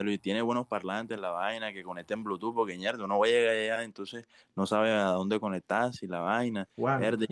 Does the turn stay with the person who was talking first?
No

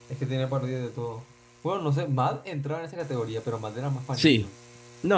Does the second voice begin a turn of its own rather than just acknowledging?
Yes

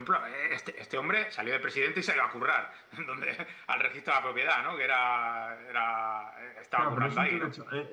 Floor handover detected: Yes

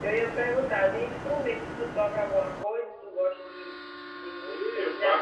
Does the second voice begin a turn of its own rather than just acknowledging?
Yes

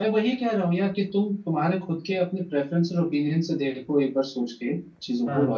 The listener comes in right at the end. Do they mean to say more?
No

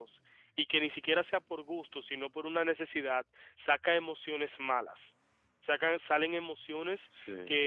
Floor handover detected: No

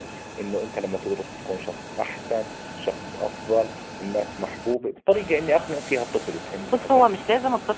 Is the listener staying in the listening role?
No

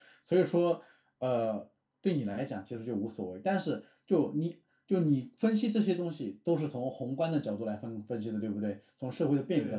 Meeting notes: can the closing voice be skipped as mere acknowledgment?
No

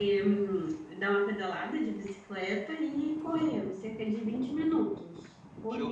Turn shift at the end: Yes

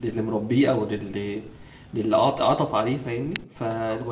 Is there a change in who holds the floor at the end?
No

